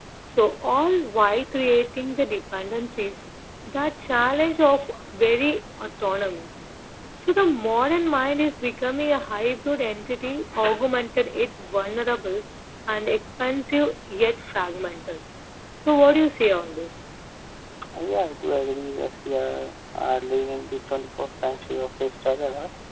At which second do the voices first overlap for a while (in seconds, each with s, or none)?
none